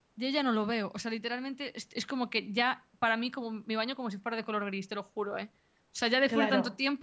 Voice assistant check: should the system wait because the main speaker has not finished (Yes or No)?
No